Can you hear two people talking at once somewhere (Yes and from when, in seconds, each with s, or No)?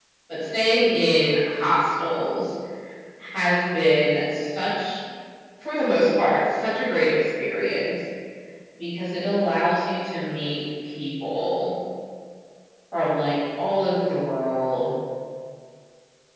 No